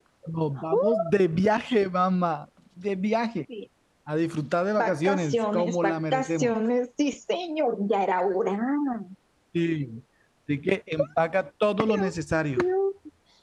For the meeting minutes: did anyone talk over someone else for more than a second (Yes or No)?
Yes